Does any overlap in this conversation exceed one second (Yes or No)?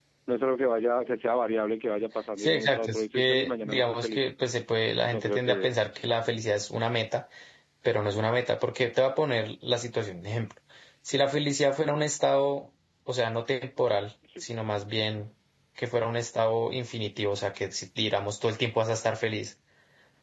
Yes